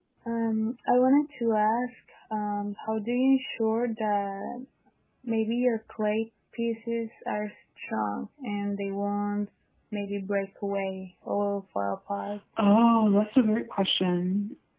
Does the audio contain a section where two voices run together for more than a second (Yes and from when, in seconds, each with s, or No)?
No